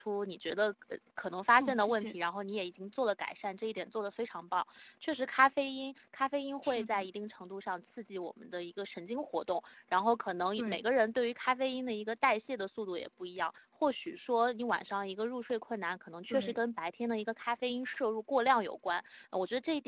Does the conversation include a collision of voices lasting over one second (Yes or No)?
No